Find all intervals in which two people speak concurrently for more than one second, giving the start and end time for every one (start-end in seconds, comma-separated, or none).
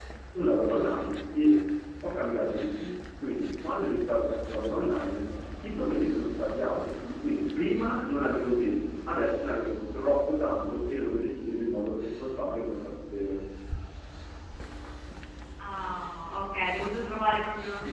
none